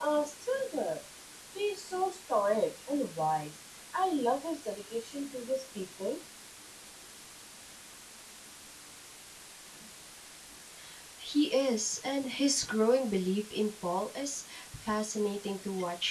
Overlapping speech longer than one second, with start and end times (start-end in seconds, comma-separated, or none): none